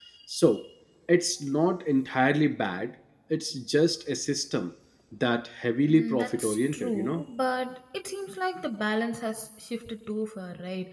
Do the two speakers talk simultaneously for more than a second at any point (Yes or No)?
Yes